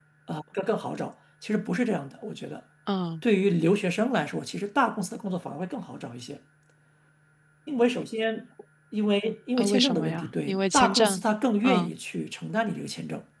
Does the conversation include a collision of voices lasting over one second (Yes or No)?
Yes